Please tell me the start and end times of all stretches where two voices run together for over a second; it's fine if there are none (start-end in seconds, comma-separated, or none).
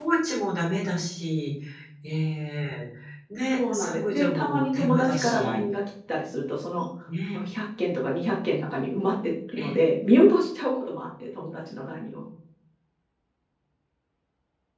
3.6-5.6